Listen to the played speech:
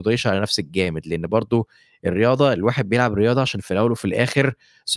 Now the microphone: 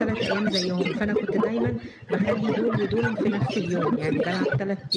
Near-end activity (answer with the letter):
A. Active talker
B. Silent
A